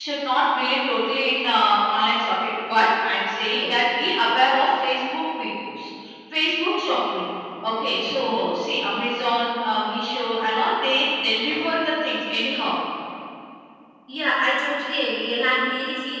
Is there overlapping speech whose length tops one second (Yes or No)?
No